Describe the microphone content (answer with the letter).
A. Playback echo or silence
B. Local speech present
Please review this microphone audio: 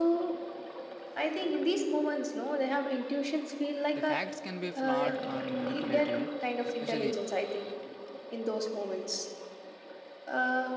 B